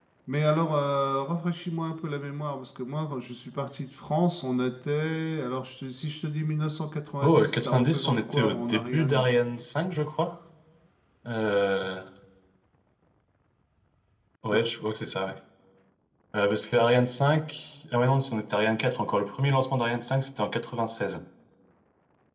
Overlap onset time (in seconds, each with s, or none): 7.2 s